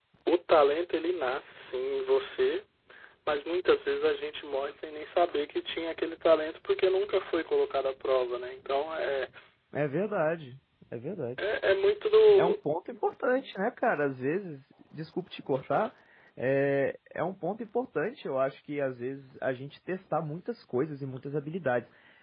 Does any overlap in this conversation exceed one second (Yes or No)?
No